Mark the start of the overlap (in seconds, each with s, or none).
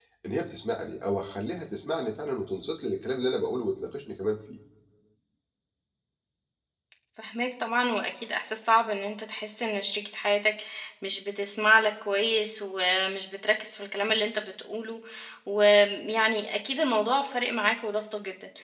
none